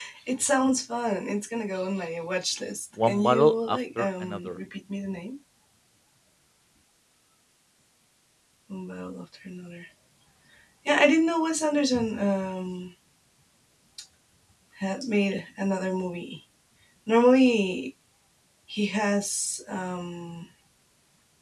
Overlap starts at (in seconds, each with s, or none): 3.0 s